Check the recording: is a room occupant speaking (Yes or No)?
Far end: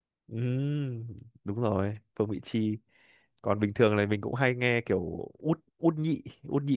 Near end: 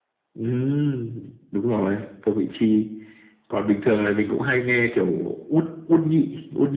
No